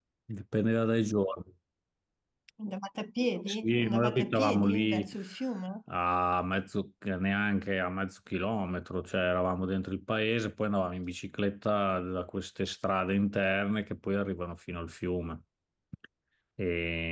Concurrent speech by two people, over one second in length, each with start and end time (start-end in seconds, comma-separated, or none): 3.5-5.1